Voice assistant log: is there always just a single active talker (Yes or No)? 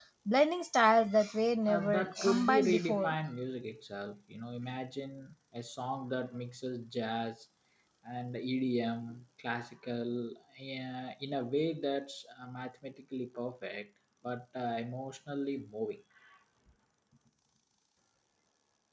No